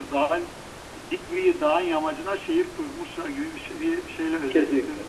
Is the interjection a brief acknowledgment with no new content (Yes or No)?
No